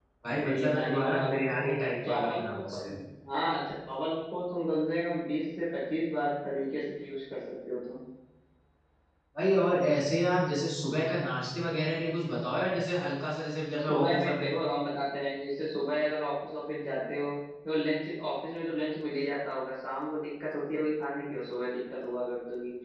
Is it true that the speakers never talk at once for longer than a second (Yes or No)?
No